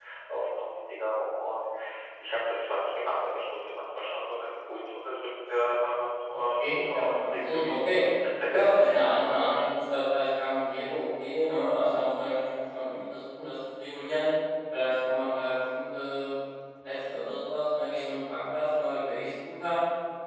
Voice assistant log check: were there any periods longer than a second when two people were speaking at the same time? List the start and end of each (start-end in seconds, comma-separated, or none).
6.6-8.0